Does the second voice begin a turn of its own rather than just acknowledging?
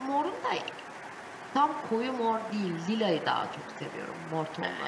Yes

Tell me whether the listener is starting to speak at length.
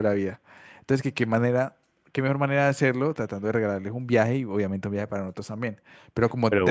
Yes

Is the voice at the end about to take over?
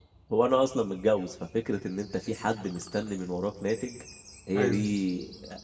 No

